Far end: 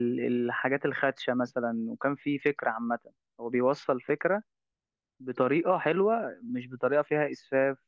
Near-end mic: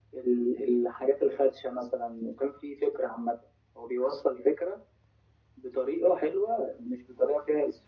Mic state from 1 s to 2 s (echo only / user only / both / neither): echo only